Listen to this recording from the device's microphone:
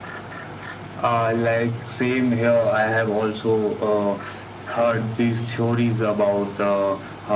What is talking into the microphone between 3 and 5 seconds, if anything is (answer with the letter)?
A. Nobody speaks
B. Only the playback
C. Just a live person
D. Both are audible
B